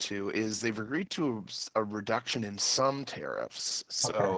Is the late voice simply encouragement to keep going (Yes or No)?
Yes